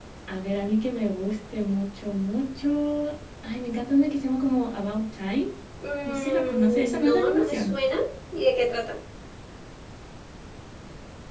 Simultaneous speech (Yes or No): Yes